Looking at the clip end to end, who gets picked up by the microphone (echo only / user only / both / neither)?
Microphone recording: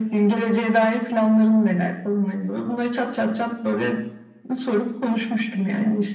echo only